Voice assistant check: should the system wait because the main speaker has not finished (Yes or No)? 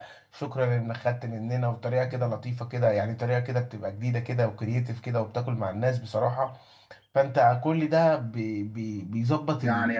No